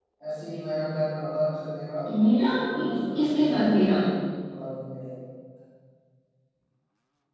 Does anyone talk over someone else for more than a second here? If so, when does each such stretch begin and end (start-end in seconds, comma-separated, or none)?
2.5-4.0